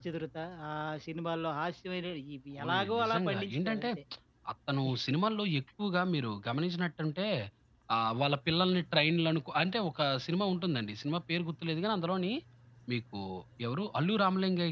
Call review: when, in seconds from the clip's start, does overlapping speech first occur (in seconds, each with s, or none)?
2.6 s